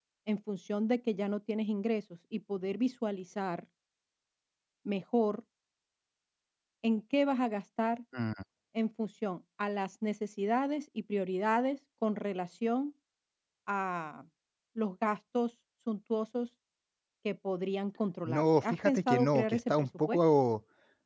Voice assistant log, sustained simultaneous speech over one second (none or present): present